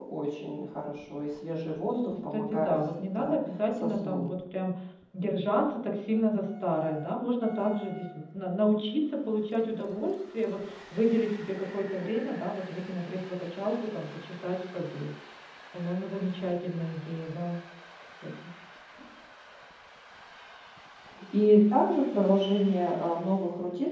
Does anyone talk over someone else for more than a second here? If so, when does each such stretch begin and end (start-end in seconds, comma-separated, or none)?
2.3-4.3